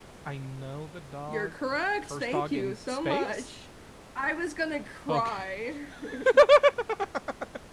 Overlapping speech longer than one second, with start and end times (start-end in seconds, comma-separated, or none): 2.0-3.5